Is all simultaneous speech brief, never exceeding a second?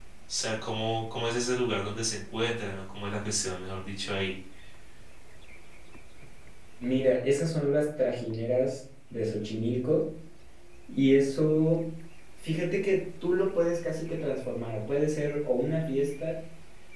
Yes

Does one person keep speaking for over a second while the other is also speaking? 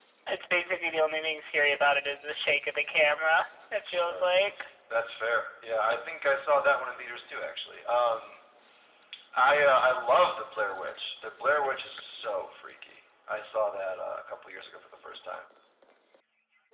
No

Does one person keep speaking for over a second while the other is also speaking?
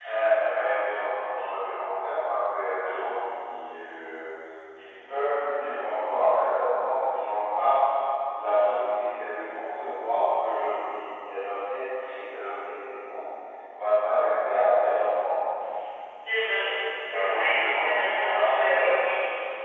Yes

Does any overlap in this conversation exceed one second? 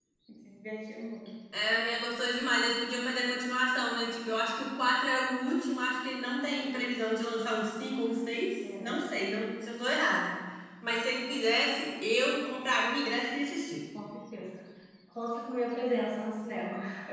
No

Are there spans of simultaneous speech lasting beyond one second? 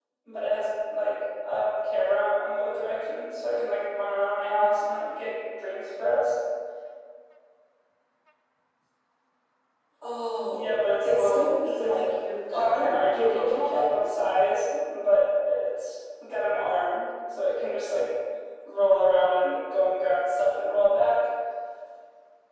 Yes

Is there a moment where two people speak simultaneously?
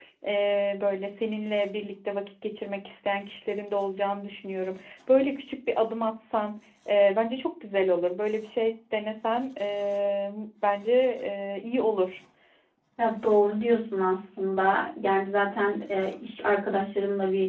No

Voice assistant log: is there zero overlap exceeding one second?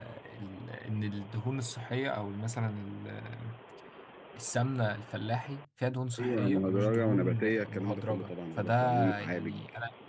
No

